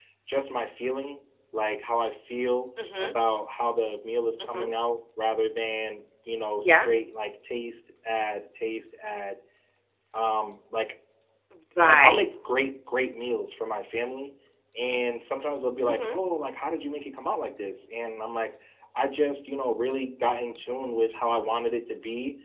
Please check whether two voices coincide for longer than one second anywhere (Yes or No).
No